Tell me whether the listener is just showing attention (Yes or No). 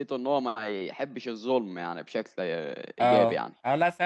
No